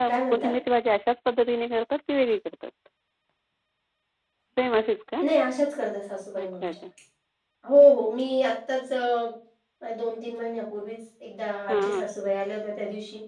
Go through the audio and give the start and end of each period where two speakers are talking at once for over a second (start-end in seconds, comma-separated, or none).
none